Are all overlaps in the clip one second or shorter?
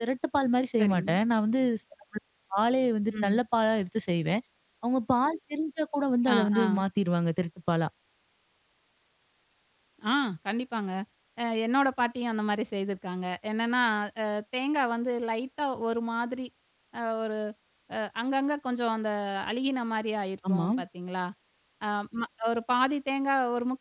Yes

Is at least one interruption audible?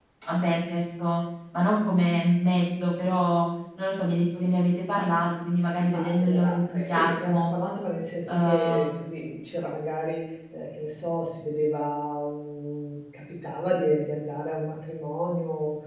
Yes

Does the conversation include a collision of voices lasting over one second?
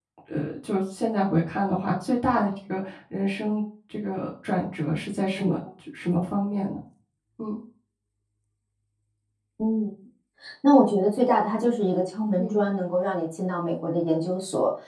No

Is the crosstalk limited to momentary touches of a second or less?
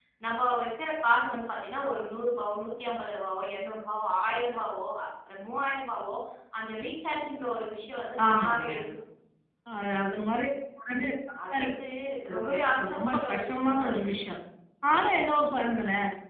No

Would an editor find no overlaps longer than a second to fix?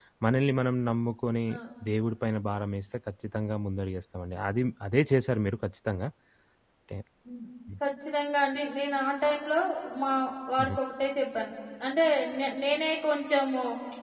Yes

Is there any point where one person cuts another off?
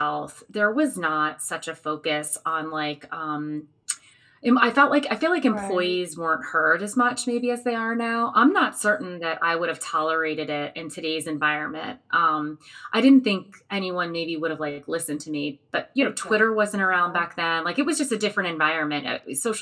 Yes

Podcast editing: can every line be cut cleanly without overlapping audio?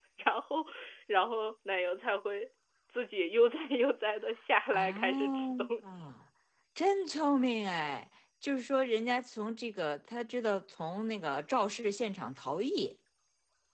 No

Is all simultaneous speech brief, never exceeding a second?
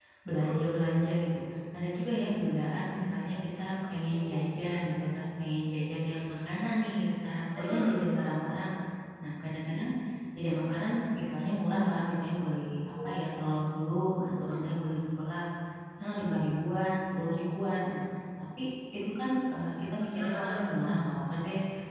Yes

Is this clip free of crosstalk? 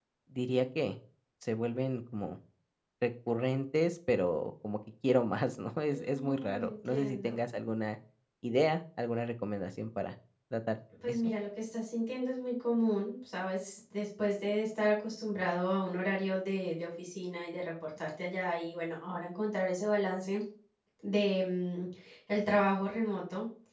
No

